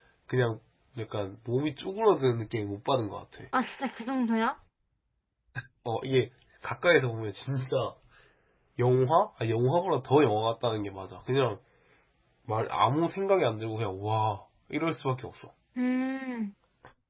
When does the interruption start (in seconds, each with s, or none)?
none